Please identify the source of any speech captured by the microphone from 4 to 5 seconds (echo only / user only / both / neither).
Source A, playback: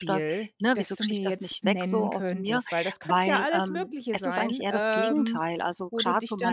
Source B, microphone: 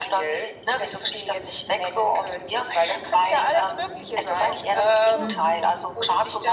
echo only